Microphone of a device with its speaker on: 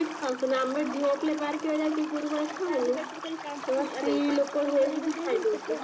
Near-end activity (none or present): none